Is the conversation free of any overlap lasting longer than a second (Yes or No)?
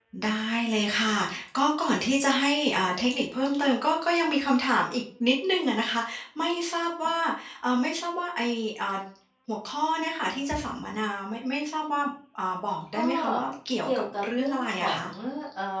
No